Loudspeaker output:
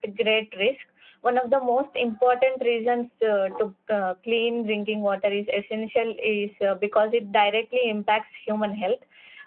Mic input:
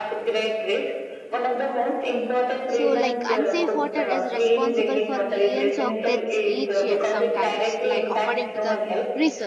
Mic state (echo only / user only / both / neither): both